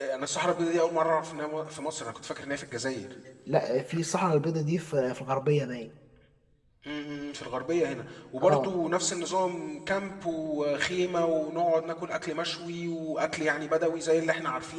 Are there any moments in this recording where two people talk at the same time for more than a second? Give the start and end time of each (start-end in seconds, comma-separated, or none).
none